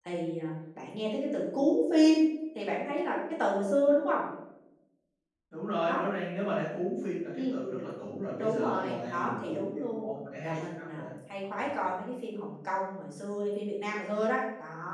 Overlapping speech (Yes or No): Yes